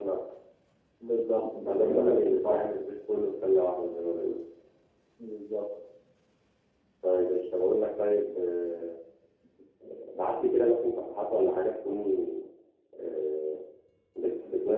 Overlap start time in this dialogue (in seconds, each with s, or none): 1.6 s